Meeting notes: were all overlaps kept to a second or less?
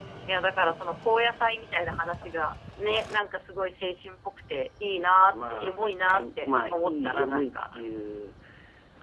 No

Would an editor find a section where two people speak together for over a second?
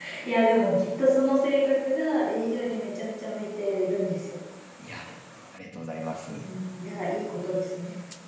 No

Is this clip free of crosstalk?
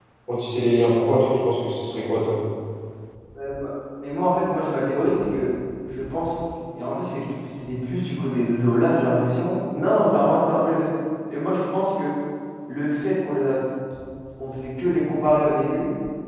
Yes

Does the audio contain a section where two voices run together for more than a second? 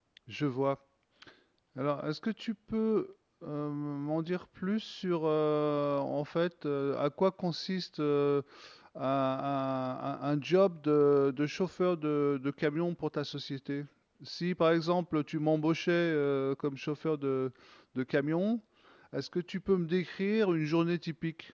No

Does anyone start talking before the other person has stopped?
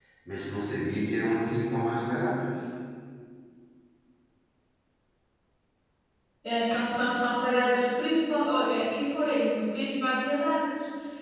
No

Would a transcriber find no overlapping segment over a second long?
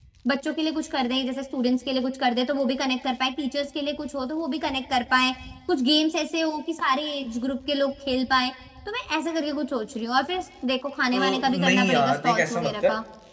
No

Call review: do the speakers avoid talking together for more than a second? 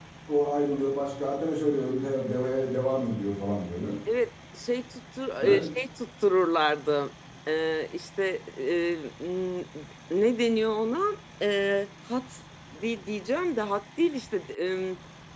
Yes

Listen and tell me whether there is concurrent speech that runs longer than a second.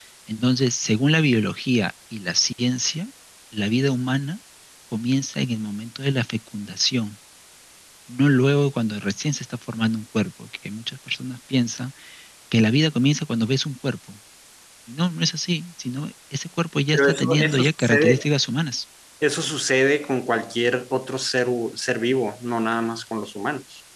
Yes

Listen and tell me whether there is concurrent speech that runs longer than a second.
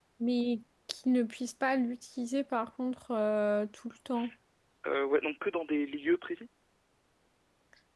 No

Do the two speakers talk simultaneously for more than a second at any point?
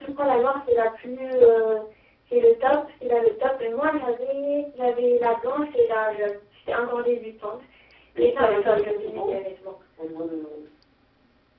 Yes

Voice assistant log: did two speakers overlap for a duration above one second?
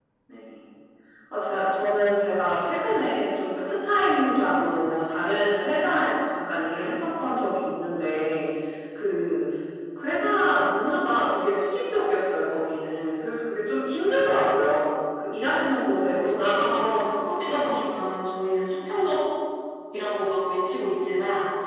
Yes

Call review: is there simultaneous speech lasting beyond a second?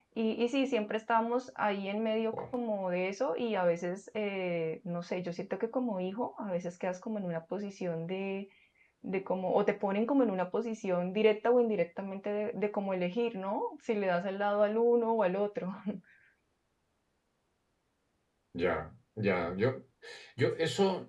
No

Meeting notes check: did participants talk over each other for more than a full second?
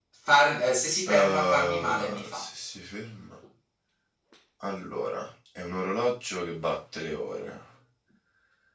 Yes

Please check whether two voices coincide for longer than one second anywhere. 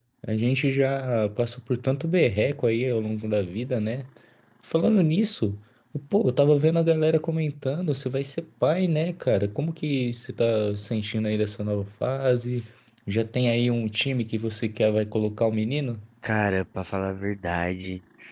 No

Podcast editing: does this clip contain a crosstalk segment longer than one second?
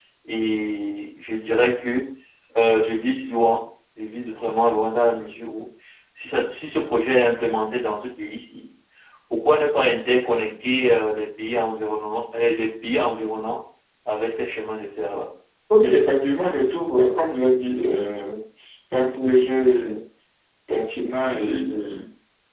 No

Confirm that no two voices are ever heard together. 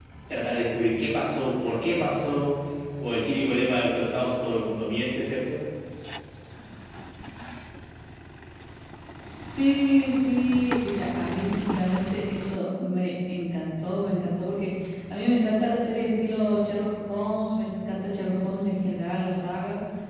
Yes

